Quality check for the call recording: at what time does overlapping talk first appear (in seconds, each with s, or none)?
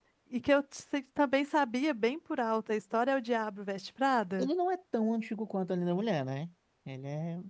none